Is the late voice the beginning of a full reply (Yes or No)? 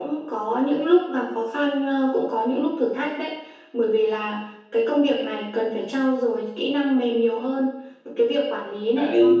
No